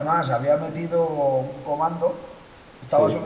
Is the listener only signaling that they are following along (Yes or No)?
Yes